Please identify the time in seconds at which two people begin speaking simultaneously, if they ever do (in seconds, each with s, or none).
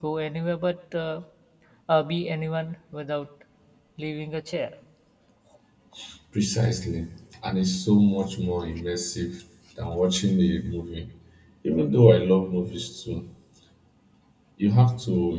none